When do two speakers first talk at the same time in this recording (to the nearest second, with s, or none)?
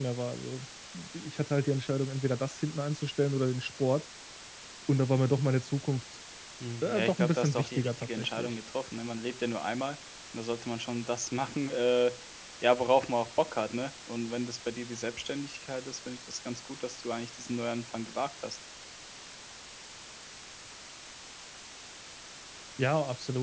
7 s